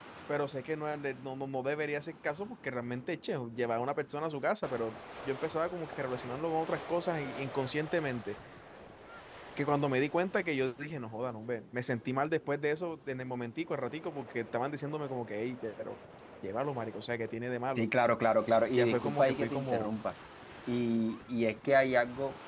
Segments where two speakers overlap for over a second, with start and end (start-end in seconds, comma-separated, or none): 18.7-20.0